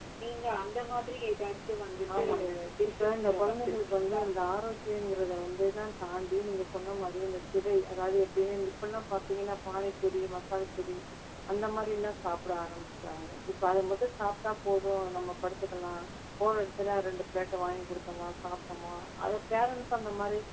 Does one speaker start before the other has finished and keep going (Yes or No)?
Yes